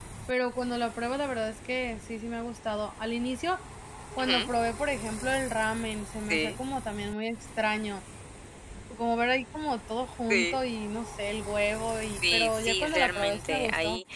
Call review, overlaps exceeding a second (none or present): present